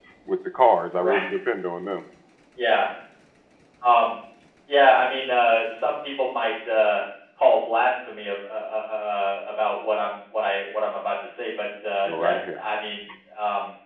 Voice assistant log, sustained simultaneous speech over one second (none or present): none